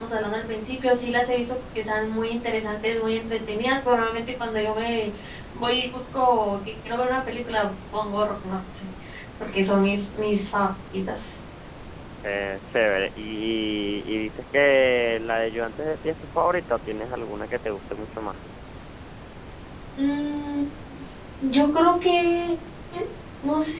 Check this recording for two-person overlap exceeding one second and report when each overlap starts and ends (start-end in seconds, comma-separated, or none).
none